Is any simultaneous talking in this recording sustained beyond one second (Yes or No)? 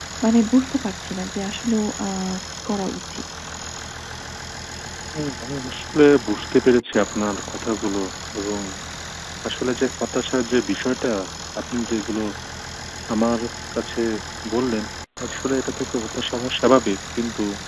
No